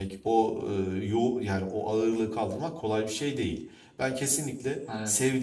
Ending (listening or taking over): listening